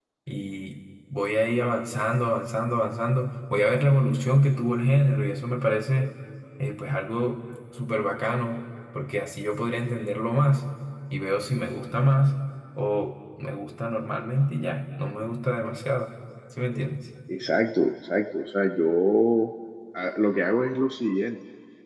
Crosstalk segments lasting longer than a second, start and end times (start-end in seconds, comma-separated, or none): none